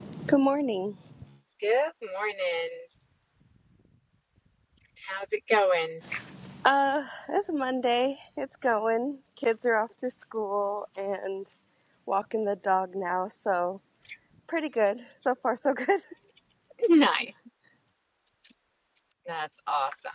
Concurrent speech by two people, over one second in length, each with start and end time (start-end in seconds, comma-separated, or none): none